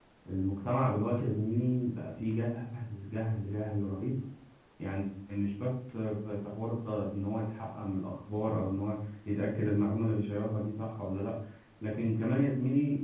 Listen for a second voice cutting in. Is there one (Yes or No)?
No